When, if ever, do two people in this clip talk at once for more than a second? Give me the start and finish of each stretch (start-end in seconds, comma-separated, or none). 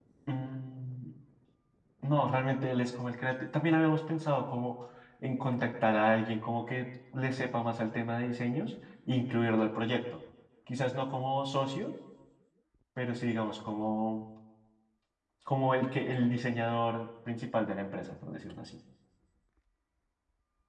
none